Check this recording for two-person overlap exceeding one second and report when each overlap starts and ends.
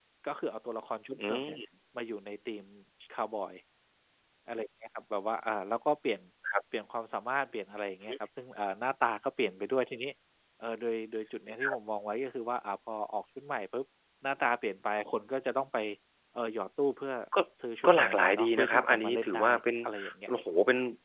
17.9-19.5

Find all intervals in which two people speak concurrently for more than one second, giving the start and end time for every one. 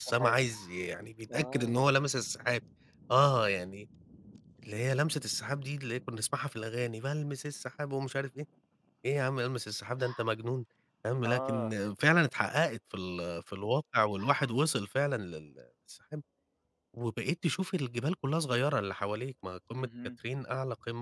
none

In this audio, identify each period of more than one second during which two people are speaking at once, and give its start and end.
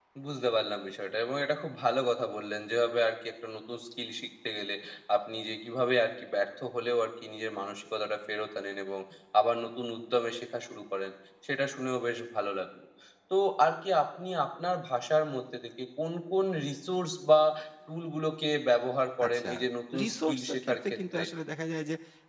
20.0-21.2

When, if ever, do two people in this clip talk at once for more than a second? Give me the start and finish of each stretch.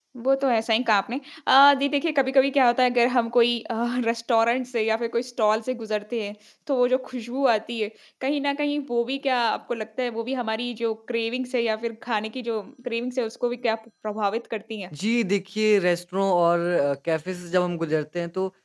none

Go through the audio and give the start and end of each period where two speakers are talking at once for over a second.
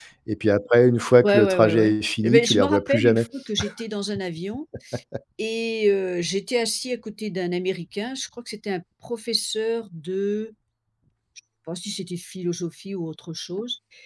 1.2-3.3

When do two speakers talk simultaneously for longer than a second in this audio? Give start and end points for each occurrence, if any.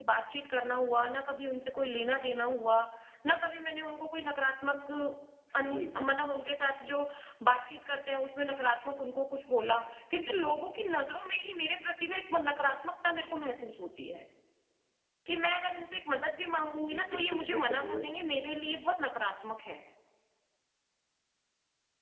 16.9-18.1

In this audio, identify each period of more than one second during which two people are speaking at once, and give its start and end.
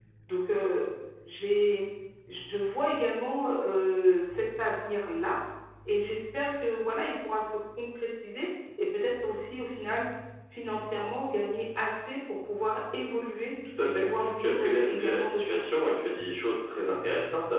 13.8-15.6

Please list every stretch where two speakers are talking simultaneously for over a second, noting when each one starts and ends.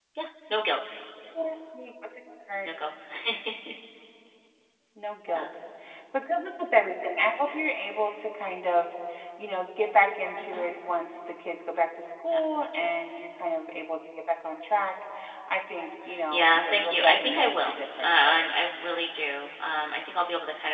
16.3-18.5

